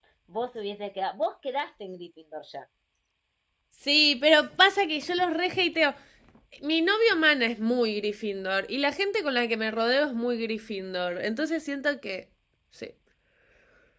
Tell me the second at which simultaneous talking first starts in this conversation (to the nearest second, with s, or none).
none